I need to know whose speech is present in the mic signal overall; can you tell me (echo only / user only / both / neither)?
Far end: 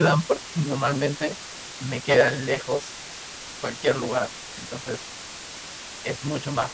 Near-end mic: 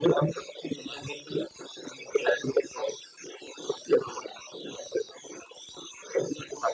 echo only